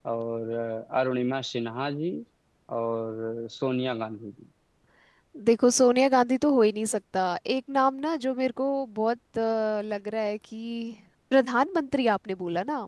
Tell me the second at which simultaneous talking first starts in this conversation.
none

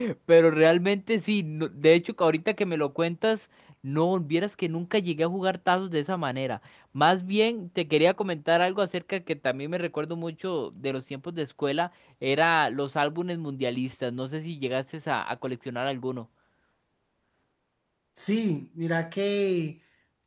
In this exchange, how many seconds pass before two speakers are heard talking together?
none

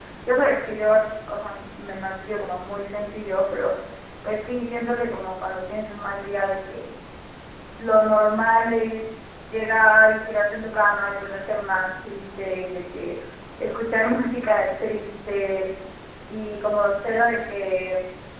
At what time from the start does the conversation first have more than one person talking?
none

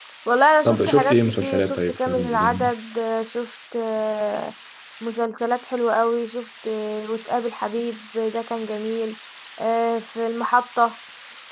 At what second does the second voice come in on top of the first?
0.6 s

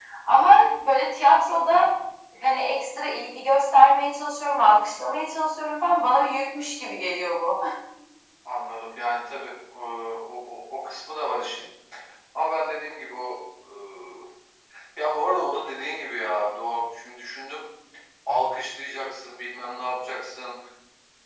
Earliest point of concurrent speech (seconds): none

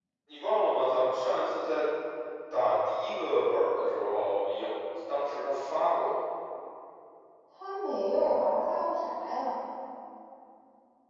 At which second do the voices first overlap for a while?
none

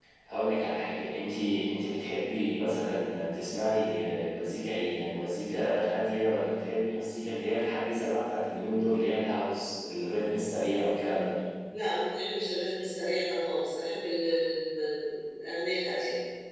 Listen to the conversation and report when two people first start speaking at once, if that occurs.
none

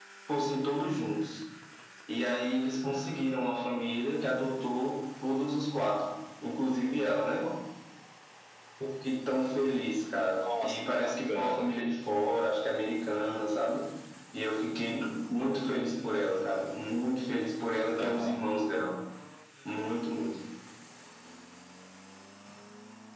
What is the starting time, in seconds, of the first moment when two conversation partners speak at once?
10.4 s

